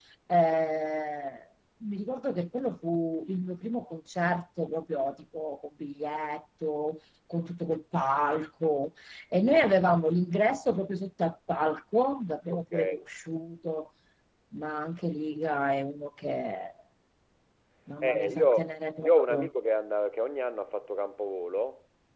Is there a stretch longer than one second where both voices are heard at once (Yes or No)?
Yes